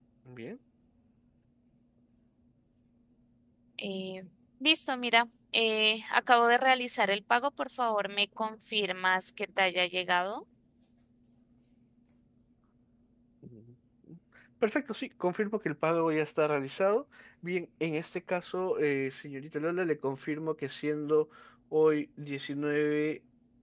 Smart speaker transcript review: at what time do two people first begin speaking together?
none

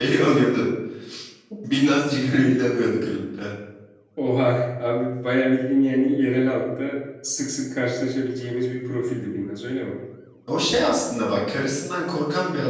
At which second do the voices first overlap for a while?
none

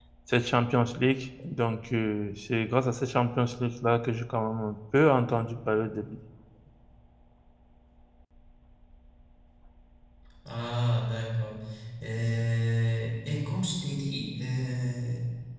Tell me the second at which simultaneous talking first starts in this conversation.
none

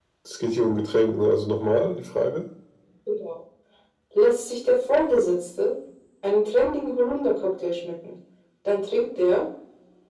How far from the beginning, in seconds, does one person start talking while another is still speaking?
none

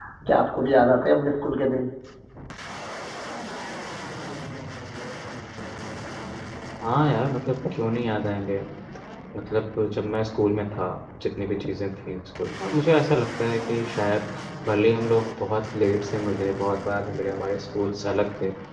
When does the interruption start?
none

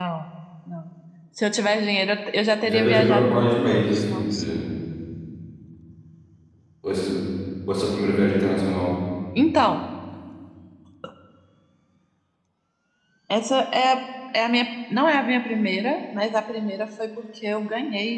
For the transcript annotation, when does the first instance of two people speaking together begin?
2.6 s

